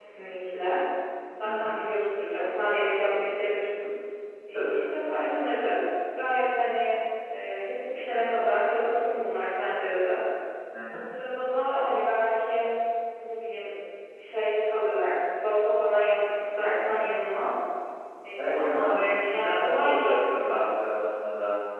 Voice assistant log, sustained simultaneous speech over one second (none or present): present